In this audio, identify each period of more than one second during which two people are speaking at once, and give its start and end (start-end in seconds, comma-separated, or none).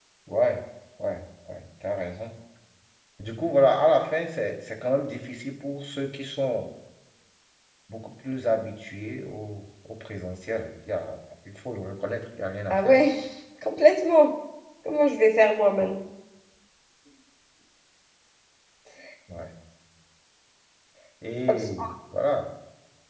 none